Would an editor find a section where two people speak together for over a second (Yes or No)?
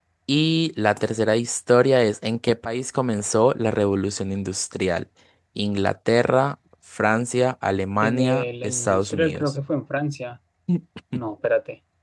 Yes